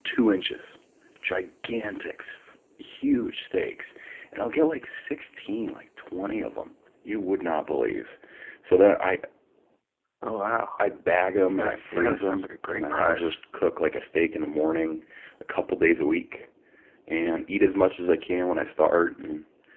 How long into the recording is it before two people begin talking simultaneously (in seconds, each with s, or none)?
11.6 s